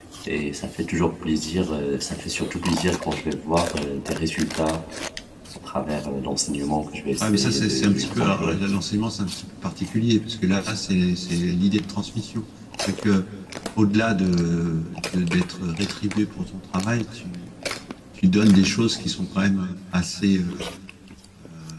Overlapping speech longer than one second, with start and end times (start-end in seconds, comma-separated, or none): 7.2-8.6